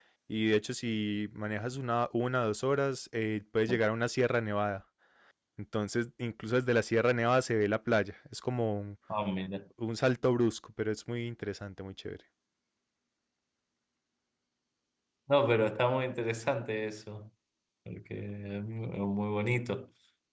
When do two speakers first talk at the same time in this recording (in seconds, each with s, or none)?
none